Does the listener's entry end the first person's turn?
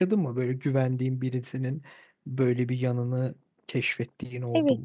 Yes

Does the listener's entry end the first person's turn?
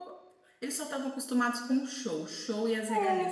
No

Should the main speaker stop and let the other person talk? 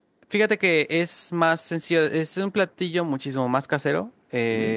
No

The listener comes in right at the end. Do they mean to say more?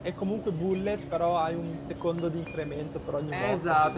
Yes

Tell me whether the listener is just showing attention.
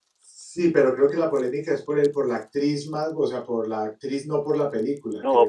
No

